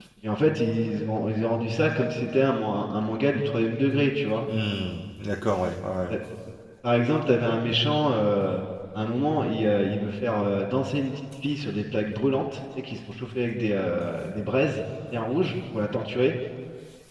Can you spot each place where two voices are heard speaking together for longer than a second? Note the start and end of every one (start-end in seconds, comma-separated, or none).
none